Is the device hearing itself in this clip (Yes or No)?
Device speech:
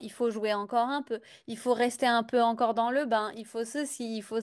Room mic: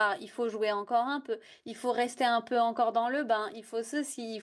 Yes